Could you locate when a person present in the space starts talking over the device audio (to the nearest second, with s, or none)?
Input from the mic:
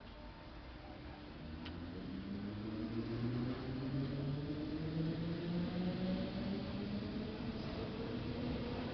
none